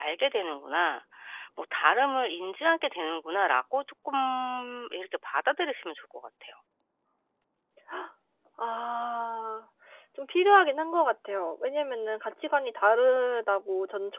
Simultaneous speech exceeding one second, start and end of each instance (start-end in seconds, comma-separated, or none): none